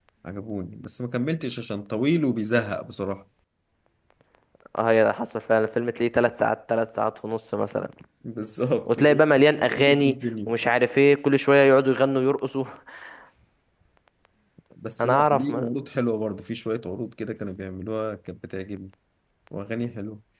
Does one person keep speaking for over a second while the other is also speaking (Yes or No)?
Yes